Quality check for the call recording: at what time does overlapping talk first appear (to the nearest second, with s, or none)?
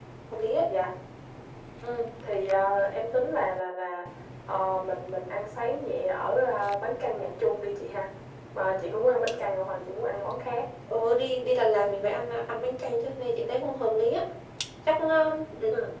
none